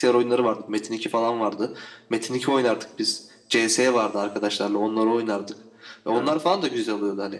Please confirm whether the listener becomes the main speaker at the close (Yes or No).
No